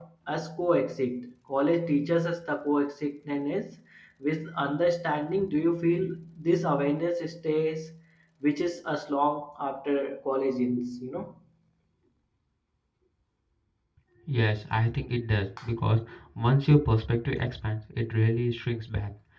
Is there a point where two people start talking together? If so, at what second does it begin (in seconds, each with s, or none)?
none